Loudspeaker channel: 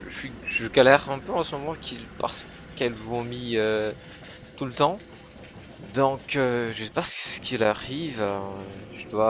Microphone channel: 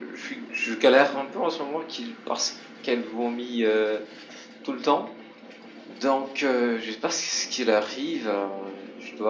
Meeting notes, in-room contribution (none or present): none